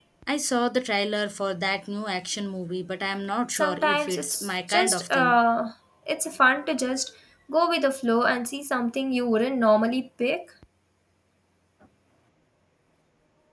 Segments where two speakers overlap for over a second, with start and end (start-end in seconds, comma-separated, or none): 3.5-5.4